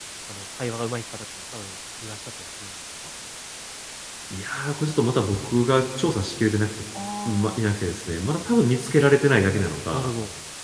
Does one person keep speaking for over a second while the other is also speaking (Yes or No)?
No